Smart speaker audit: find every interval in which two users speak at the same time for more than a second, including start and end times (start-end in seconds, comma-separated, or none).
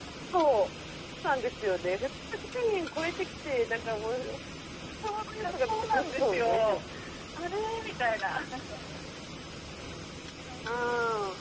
5.4-6.8